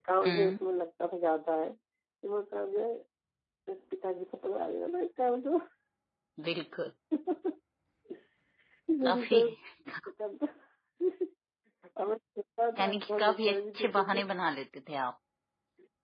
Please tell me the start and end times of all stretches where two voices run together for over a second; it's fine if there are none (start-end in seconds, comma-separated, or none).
12.8-14.3